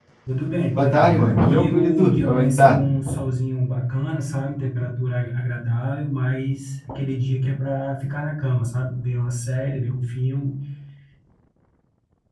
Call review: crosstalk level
present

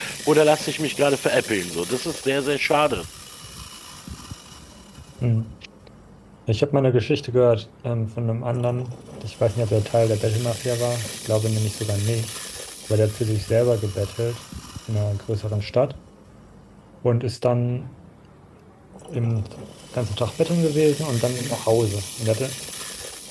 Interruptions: none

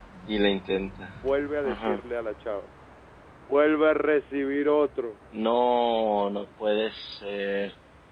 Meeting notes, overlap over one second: none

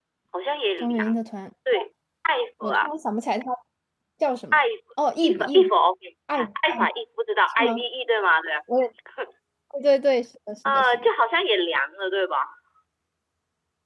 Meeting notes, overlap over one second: none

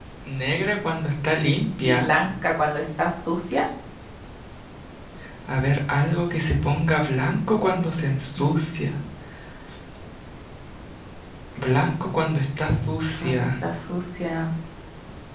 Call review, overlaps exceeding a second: none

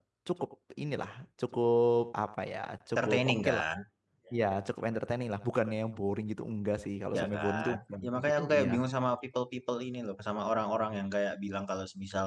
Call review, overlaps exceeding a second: present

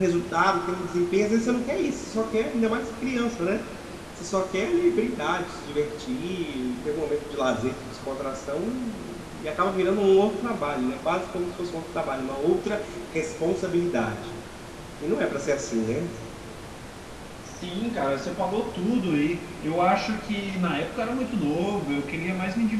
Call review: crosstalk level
none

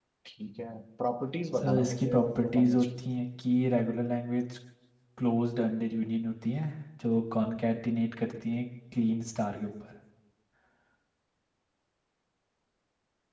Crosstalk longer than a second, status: present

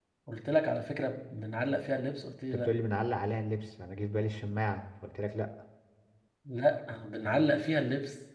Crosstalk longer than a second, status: none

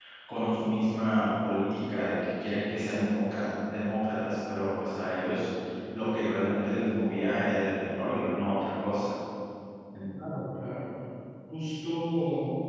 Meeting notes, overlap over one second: none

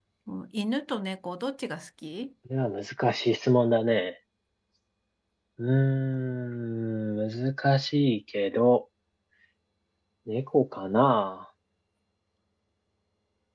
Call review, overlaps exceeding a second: none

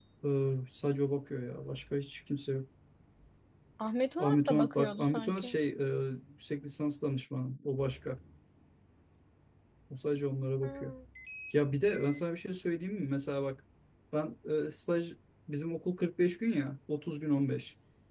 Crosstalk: present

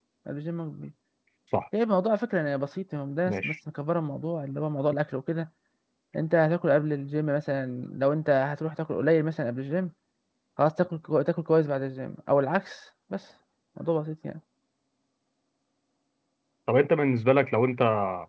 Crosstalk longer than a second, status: none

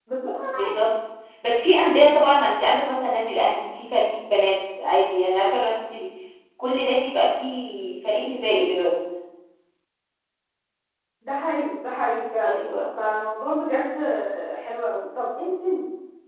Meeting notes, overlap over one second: none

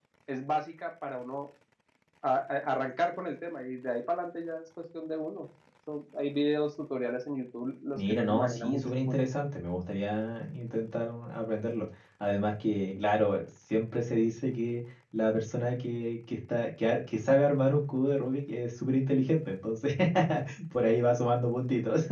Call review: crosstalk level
present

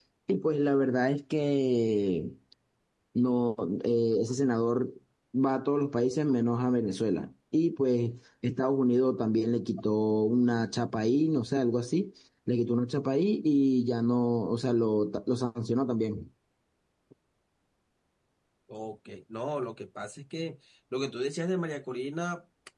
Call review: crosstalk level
none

